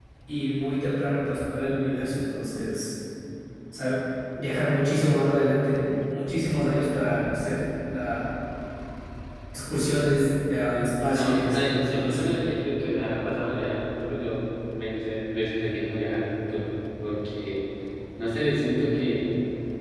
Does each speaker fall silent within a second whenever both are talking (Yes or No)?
No